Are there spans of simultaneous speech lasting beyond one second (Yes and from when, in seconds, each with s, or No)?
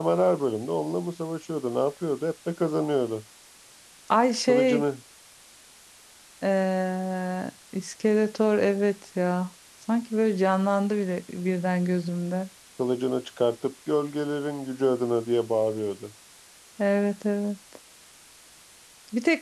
No